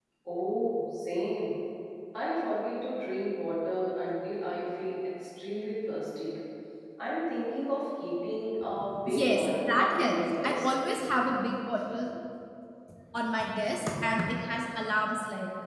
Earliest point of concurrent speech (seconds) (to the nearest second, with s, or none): 9 s